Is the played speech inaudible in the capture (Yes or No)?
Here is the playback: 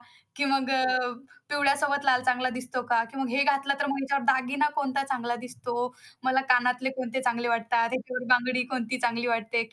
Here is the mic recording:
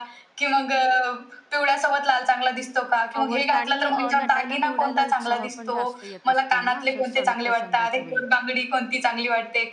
No